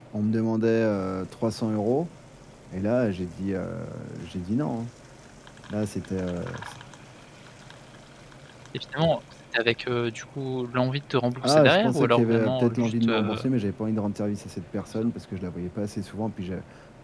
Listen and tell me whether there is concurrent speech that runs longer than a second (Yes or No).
Yes